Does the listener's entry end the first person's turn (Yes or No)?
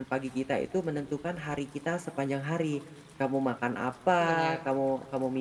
No